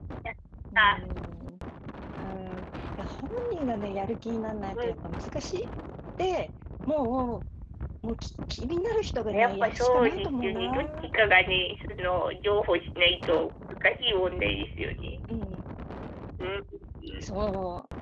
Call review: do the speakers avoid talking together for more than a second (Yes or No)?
No